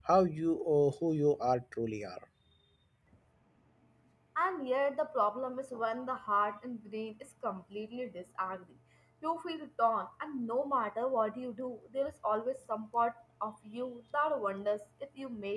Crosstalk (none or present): none